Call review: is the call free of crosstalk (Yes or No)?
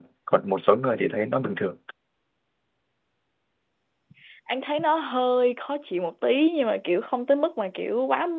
Yes